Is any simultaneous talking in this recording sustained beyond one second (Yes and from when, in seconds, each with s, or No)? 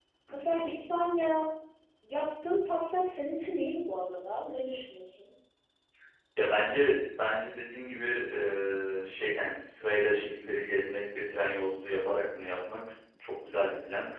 No